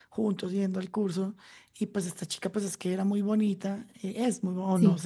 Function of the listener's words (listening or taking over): listening